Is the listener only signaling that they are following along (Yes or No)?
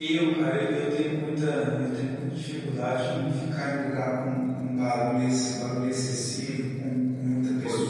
Yes